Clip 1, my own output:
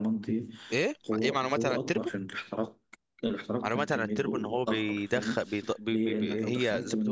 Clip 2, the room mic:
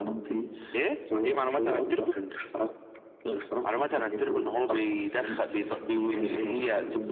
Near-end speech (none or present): present